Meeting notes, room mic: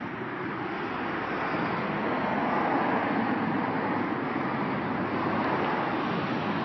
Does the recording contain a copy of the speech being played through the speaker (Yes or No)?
No